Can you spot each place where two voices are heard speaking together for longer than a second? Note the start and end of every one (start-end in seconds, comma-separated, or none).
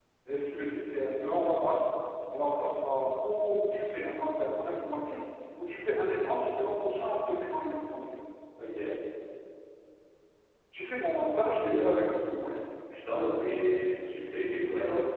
none